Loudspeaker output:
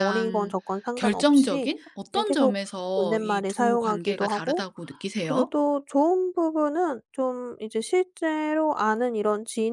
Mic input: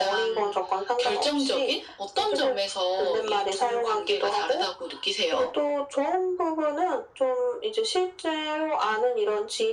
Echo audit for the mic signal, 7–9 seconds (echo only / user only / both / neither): echo only